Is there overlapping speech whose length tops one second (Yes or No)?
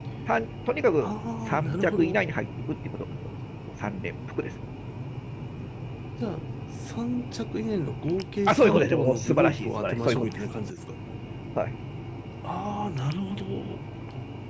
Yes